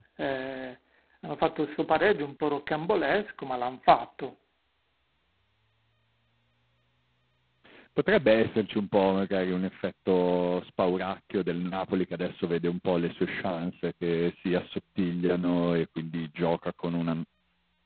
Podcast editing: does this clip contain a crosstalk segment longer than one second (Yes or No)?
No